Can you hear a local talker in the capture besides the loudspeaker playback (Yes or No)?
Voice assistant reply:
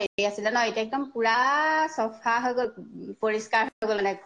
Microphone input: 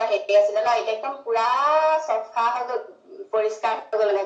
No